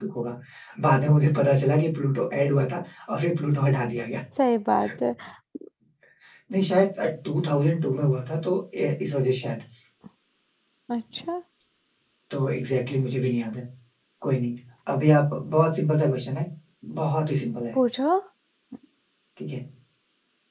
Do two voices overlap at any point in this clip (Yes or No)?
No